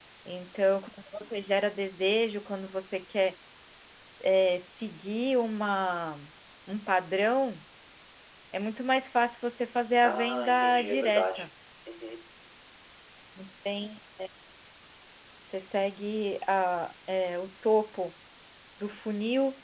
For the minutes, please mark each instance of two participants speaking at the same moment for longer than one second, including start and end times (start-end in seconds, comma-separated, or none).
10.0-11.5